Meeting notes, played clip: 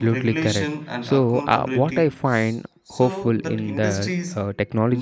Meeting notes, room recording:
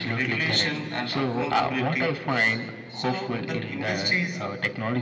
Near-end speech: none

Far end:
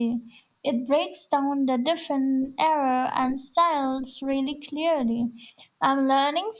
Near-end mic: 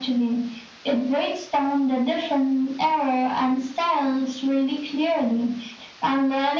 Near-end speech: none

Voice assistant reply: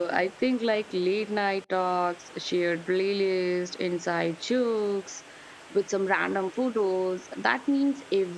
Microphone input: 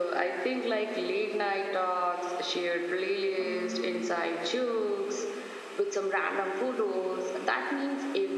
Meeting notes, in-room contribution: present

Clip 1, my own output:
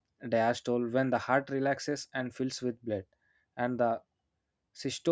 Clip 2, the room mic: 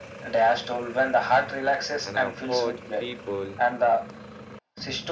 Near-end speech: present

